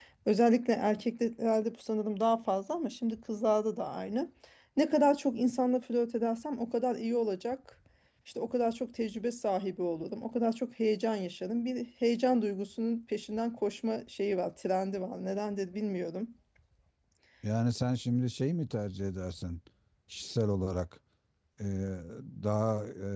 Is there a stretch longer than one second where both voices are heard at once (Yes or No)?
No